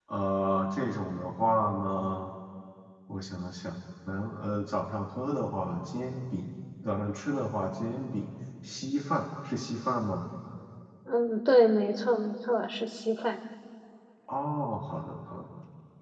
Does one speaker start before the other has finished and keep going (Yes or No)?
No